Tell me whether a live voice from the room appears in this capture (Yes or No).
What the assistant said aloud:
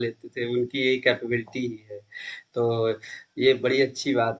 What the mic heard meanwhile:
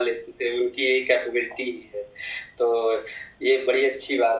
No